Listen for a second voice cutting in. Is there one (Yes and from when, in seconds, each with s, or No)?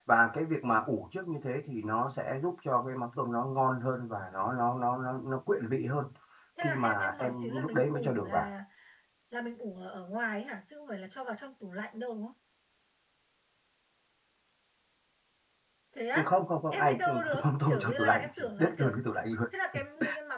Yes, from 6.6 s